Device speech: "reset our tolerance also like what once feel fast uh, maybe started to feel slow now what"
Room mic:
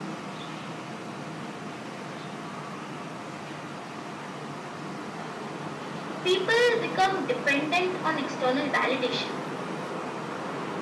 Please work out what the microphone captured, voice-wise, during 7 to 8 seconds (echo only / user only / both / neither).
user only